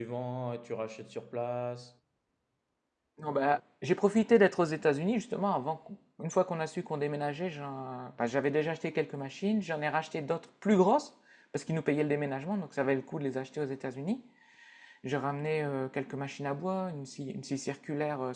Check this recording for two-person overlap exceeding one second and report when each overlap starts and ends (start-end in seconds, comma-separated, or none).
none